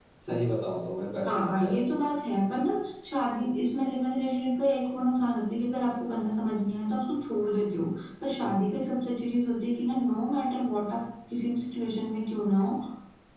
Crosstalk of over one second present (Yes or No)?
No